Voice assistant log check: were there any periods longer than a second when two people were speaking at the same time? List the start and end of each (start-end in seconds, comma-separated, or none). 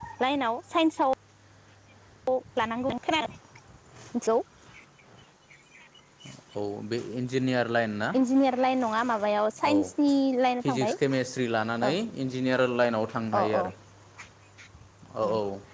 none